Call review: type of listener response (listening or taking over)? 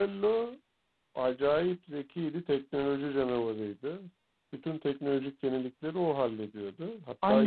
taking over